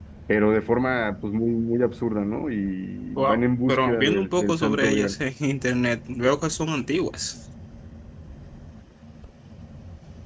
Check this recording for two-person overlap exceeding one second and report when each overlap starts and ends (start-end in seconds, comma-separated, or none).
3.2-5.2